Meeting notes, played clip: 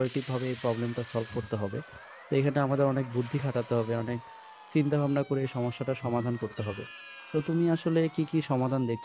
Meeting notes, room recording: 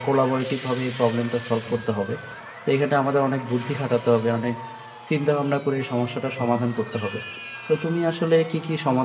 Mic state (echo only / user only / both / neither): echo only